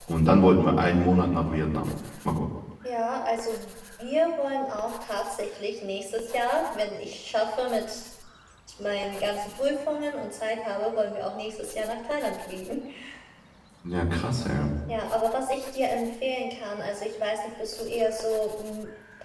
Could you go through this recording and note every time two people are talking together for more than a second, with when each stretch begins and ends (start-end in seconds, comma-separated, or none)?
none